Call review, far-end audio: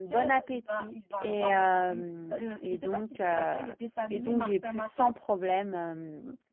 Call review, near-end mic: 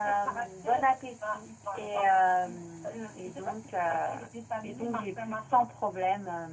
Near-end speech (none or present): none